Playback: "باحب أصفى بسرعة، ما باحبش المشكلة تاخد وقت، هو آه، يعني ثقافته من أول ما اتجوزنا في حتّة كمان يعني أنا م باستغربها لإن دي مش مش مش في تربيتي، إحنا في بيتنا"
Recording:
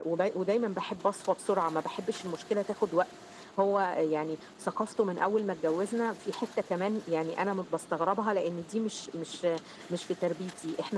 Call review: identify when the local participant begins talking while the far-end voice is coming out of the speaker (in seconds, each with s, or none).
none